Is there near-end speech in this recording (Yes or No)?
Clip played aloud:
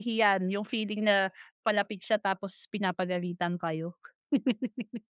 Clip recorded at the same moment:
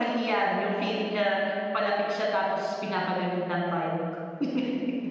No